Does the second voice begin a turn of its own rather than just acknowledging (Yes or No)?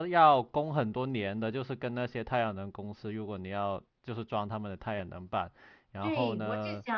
Yes